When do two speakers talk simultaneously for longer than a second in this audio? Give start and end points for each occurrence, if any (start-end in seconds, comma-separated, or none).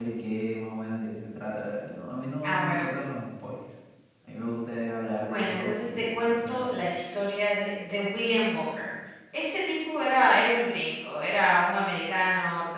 5.2-6.7